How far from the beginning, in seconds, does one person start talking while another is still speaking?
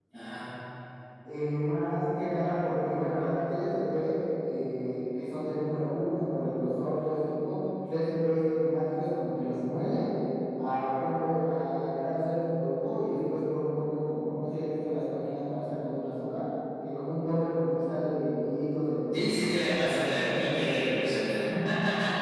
19 s

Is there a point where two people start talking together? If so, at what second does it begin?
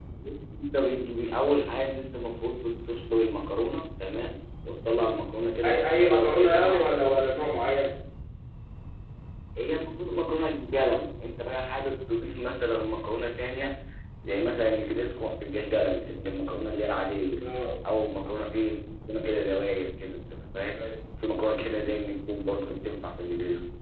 6 s

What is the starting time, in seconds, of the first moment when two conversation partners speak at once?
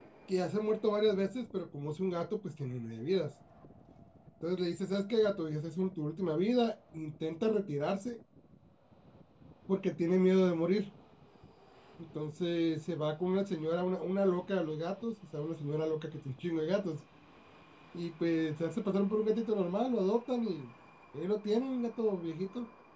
none

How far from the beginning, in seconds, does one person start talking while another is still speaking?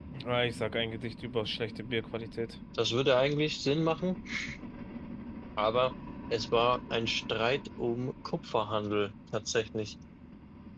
none

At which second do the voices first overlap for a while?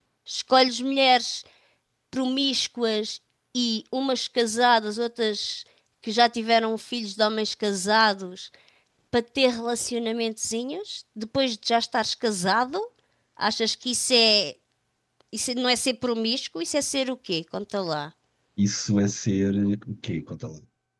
none

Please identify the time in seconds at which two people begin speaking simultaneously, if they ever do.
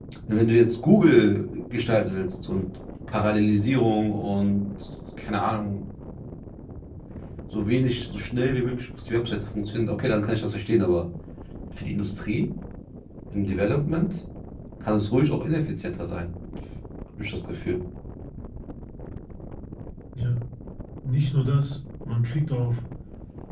none

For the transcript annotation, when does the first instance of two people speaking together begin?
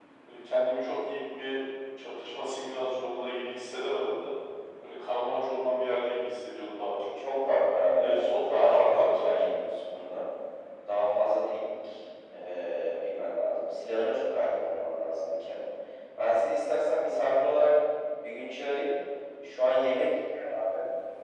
8 s

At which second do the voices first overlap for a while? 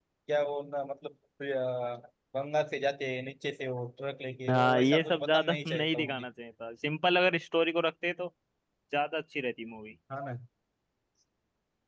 4 s

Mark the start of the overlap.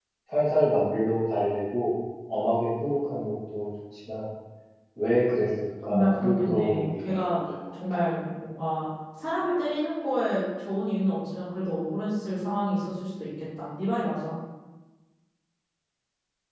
6 s

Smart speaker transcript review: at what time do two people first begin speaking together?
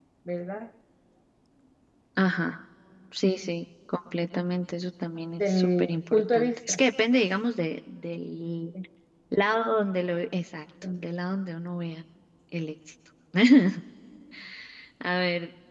5 s

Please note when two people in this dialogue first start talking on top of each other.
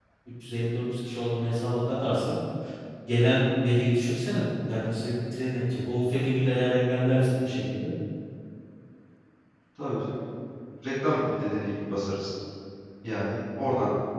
none

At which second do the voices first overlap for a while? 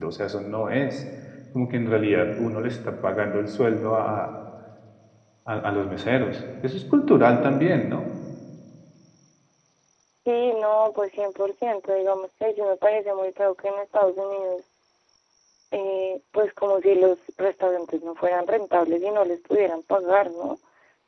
none

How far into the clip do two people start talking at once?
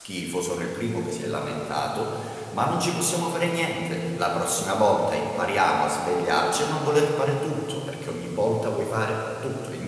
none

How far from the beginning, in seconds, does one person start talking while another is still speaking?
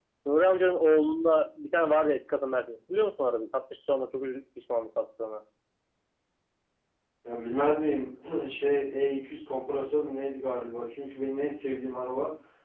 none

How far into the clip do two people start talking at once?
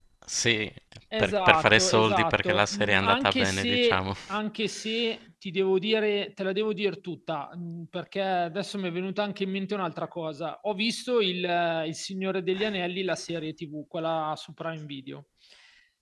1 s

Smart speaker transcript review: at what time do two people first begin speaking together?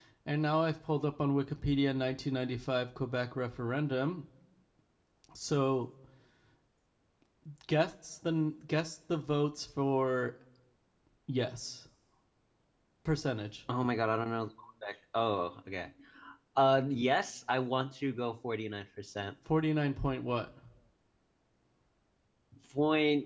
none

